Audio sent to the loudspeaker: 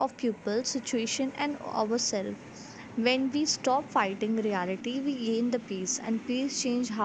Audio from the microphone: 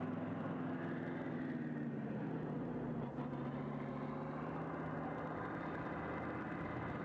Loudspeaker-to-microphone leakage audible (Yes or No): No